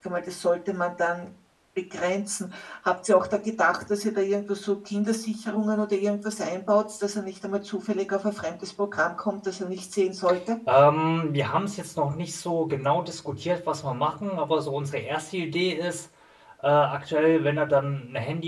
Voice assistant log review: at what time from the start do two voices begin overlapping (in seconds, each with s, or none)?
none